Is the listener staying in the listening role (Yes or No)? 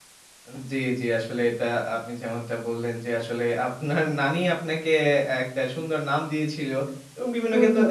Yes